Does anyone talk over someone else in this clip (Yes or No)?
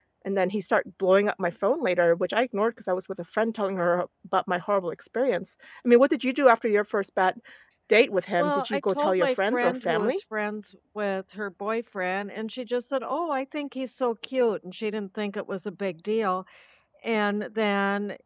Yes